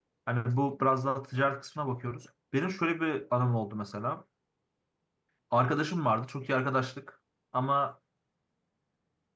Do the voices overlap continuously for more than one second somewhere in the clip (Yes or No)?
No